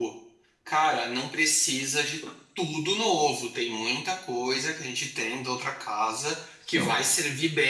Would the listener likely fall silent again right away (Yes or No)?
Yes